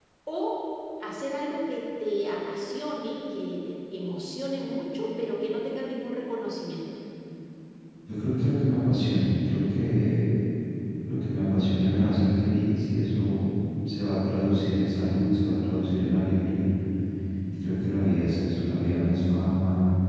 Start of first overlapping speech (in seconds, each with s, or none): none